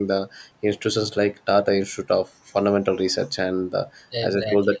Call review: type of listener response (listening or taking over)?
listening